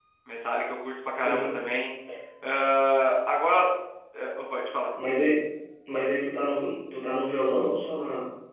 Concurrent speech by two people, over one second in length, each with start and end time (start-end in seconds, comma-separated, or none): none